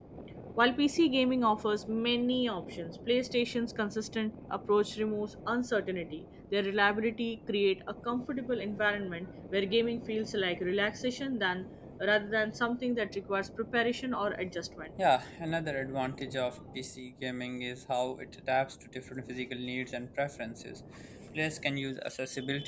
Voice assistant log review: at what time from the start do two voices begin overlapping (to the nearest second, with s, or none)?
none